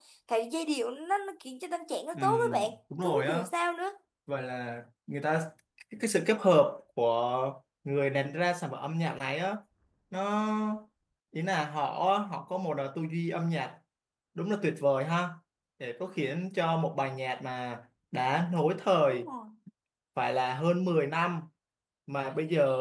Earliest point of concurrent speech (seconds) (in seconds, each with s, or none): 2.1 s